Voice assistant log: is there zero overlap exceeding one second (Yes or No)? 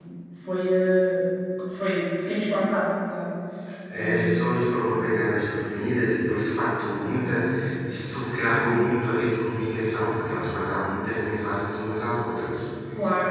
Yes